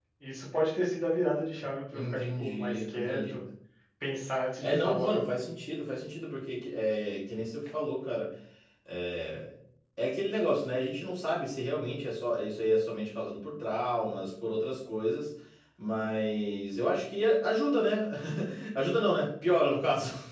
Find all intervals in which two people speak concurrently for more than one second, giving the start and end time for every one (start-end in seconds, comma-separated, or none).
1.9-3.4